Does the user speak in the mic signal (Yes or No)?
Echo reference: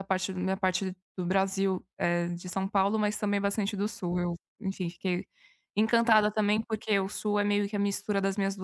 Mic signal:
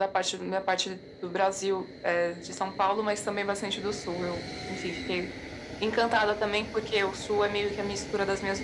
No